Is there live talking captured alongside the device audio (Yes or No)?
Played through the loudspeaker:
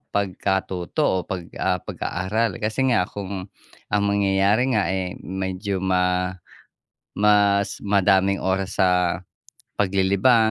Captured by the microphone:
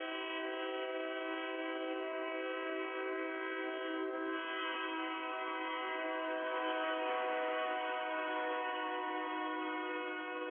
No